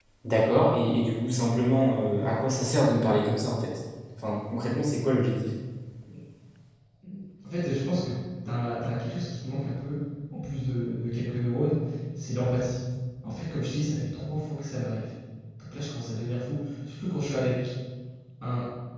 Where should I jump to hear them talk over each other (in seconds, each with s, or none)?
none